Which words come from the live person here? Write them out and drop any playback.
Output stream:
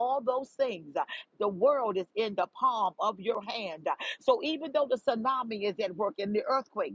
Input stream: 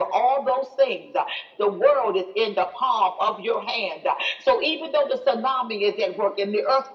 none

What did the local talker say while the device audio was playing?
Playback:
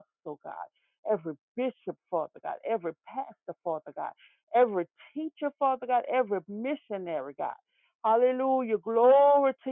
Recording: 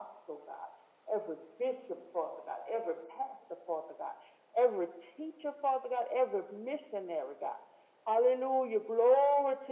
none

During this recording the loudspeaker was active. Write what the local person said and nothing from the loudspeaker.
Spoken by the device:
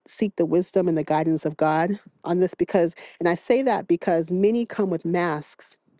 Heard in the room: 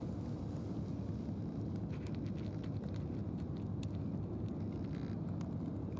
none

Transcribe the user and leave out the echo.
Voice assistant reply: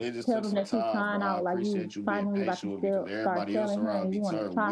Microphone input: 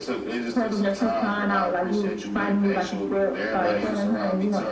Yes.

